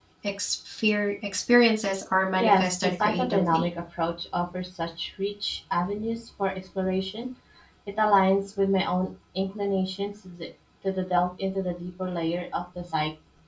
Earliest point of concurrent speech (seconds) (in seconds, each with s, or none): 2.4 s